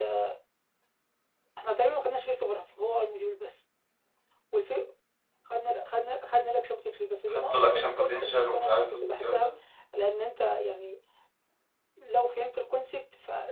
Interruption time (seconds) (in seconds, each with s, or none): 7.3 s